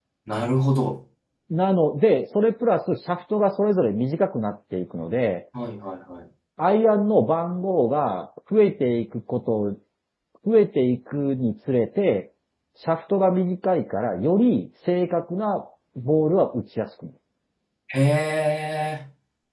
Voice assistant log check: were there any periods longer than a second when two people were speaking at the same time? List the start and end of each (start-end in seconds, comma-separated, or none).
none